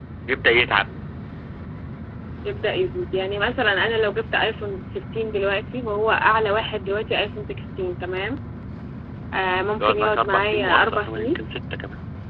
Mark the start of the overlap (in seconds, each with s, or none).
9.8 s